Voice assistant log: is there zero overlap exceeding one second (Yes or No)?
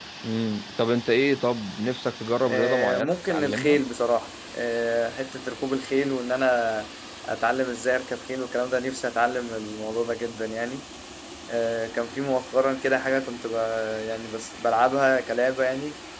No